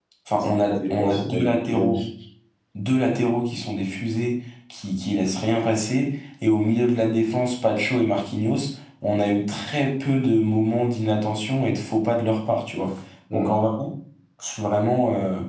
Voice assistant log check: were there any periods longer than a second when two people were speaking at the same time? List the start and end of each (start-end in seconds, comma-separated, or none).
0.7-2.0